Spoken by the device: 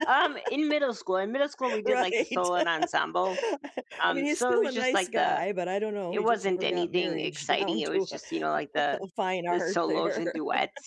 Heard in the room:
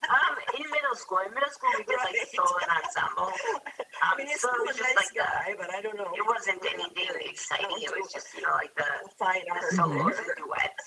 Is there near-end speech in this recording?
Yes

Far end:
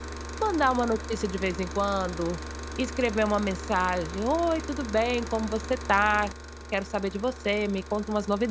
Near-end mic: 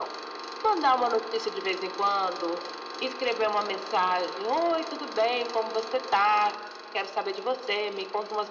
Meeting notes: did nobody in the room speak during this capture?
Yes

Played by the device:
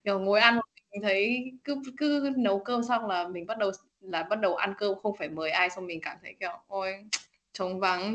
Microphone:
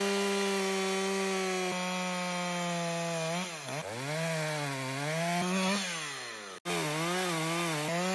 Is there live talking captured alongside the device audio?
No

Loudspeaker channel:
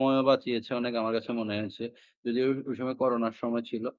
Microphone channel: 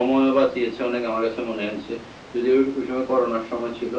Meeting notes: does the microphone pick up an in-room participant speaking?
No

